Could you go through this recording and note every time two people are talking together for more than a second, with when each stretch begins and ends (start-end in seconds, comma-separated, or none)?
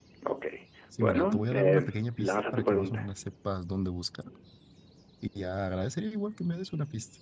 1.0-3.1